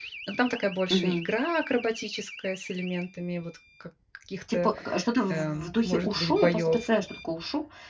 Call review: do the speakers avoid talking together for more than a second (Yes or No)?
No